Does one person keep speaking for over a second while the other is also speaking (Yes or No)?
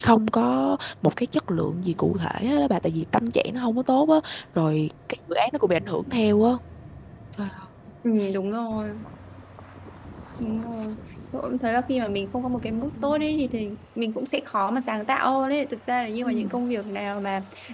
No